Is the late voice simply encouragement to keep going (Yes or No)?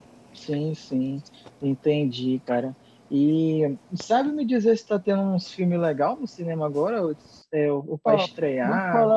No